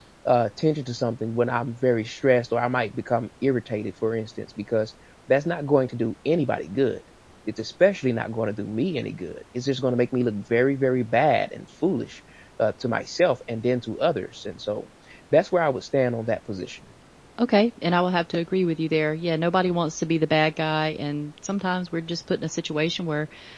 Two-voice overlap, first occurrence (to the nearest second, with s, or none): none